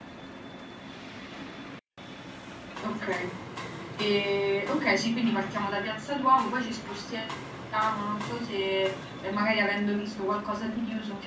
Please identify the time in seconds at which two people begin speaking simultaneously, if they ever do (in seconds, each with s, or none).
none